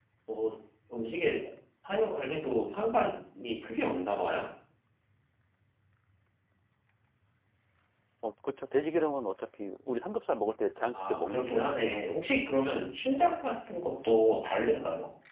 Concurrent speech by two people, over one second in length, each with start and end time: 10.9-12.4

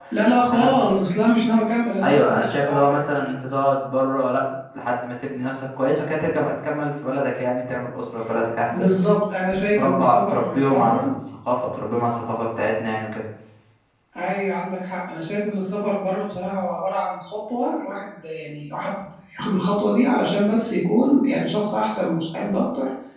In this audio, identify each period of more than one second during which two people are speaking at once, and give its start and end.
2.0-3.4, 9.8-11.1

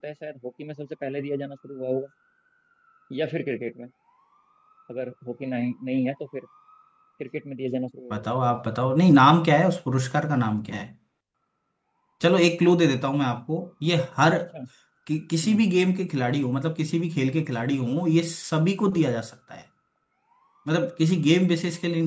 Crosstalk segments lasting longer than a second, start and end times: none

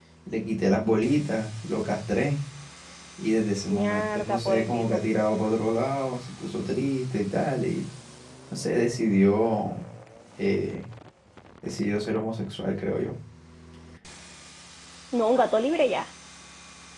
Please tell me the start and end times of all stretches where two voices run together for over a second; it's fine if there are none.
3.7-5.0

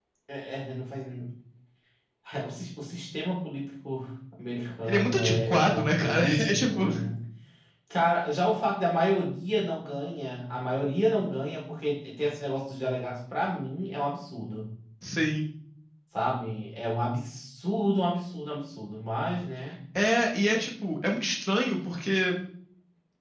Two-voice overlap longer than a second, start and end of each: 4.8-6.8

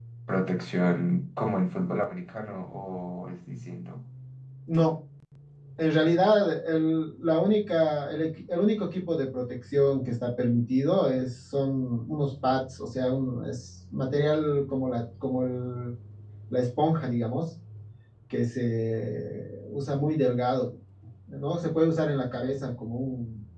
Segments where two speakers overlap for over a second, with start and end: none

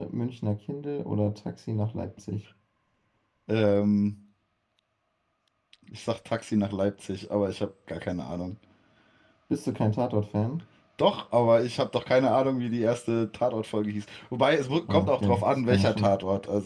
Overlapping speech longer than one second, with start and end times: 14.9-16.1

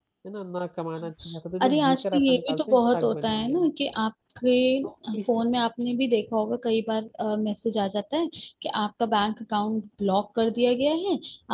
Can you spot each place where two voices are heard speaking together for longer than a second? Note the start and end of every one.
1.6-3.7

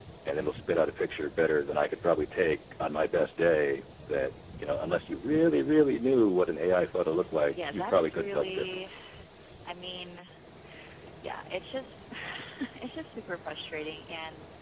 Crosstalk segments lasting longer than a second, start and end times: 7.5-8.9

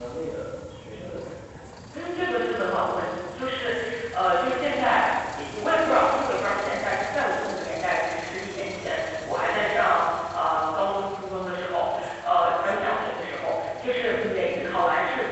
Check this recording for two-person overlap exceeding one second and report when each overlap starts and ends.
none

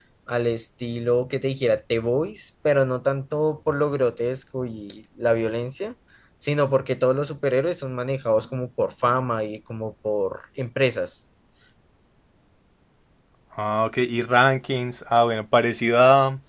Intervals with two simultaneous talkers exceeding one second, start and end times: none

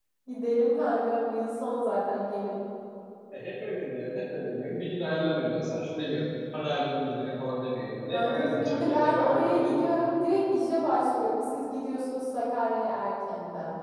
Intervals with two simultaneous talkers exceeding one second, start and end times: 8.1-9.9

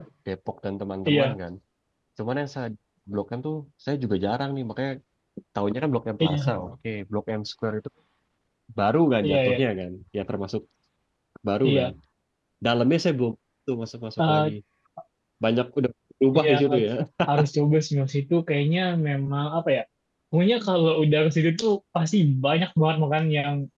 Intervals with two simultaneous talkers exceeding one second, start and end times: none

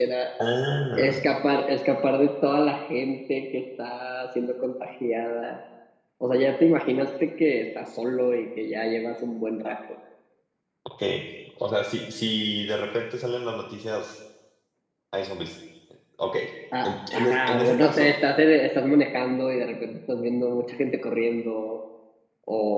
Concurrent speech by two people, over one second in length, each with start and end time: 16.8-18.1

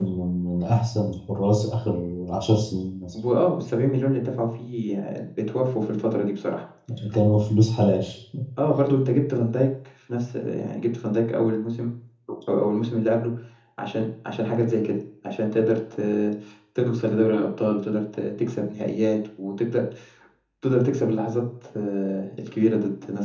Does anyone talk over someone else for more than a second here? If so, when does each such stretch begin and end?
none

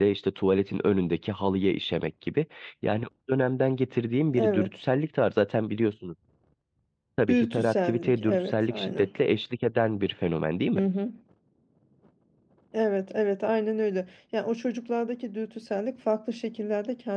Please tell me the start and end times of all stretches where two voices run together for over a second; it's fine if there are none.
7.3-9.1

